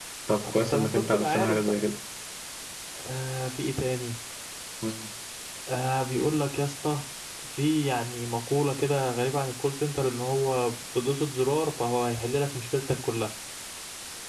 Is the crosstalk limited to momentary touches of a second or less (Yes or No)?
No